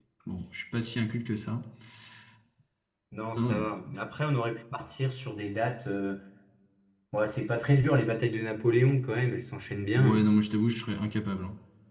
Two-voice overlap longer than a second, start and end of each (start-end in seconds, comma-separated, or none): none